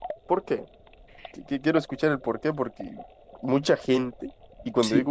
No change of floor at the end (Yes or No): Yes